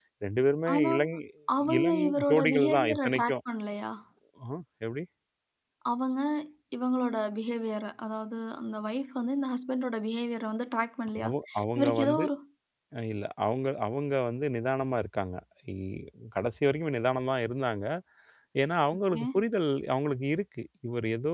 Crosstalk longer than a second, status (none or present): present